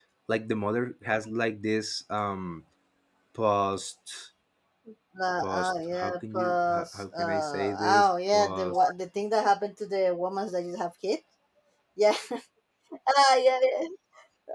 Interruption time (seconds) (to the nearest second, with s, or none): 5 s